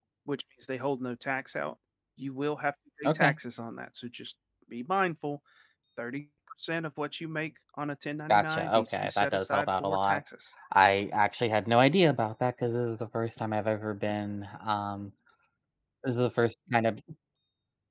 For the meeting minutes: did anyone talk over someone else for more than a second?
Yes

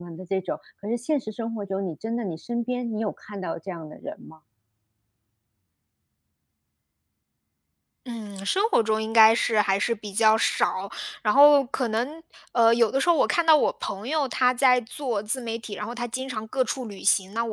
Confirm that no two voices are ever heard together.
Yes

